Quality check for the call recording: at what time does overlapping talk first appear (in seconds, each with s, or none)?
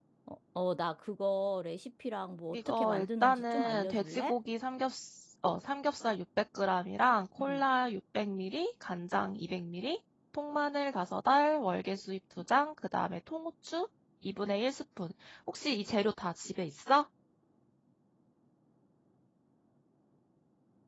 2.5 s